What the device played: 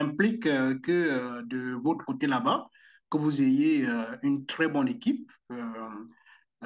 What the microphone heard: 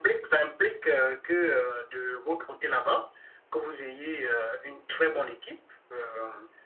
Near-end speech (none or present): none